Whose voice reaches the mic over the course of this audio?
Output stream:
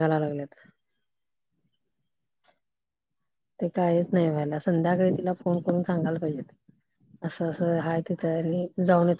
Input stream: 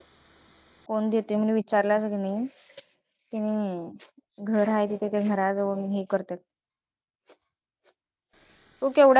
user only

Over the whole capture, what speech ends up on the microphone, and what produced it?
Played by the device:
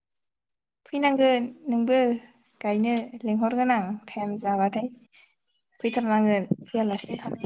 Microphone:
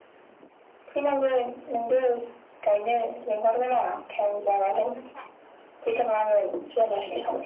both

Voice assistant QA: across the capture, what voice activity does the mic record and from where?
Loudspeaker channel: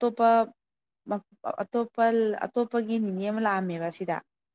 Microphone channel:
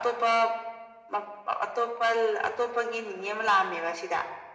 echo only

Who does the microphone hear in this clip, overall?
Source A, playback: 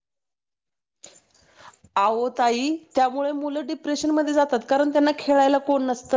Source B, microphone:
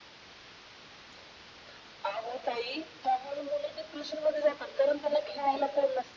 echo only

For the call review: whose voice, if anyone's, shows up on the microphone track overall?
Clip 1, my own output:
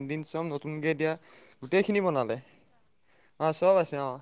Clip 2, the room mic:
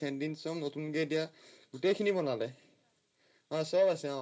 echo only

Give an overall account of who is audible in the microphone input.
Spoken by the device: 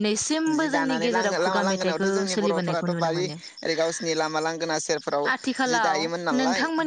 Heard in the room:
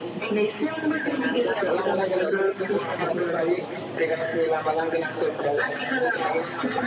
echo only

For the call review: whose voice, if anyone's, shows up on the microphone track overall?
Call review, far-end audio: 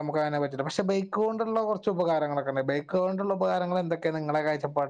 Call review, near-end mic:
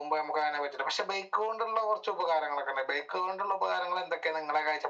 echo only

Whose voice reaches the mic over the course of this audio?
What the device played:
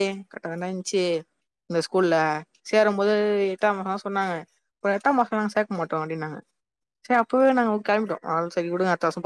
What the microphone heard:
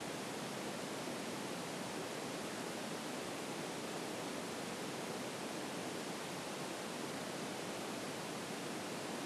neither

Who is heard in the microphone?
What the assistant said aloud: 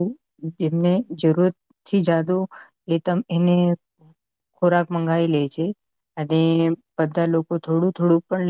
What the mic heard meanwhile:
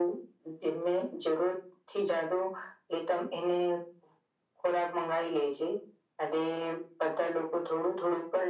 echo only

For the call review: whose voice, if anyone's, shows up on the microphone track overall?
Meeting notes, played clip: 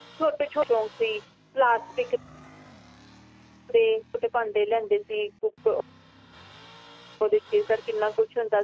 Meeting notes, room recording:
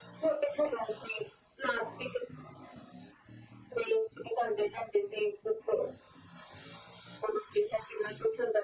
echo only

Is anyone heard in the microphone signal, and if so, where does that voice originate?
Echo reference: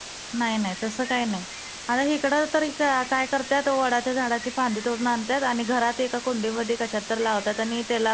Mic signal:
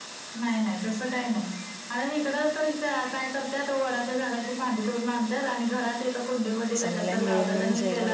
both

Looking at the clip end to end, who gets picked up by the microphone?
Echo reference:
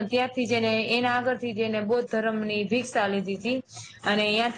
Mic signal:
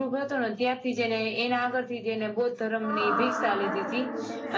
both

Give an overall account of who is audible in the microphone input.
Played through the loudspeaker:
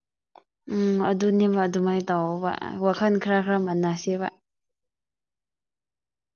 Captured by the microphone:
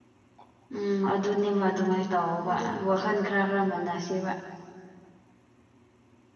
both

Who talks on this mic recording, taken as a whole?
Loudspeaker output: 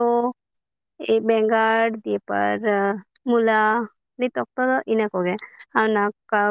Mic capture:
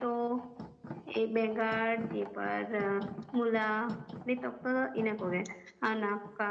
echo only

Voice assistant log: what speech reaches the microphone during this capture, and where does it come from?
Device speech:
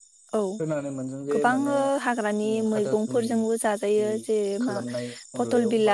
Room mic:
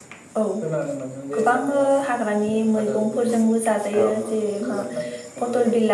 both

